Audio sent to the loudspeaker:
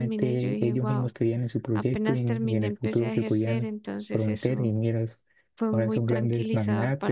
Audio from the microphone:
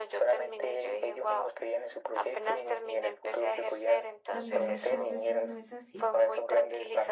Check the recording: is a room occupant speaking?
Yes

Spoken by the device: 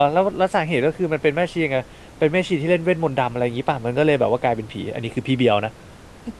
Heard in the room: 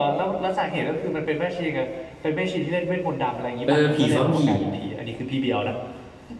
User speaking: Yes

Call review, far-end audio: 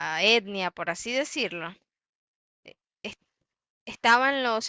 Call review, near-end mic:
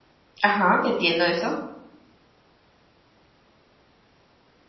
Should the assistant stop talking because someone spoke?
Yes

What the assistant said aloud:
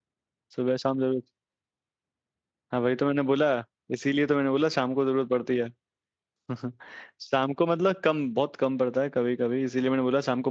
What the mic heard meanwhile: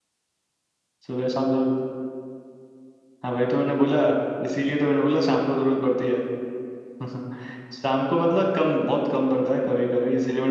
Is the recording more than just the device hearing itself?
No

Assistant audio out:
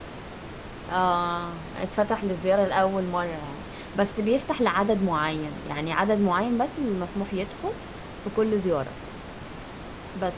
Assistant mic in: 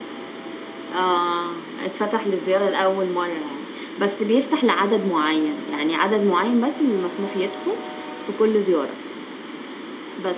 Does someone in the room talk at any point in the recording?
No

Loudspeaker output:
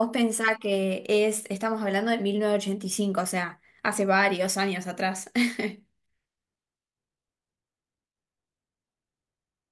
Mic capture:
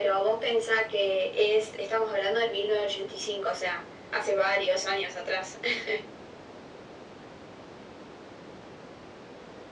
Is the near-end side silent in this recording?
Yes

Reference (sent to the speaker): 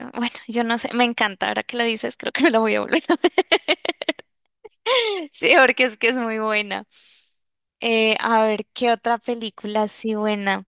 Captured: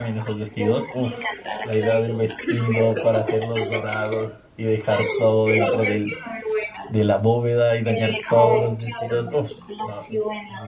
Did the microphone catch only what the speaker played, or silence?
No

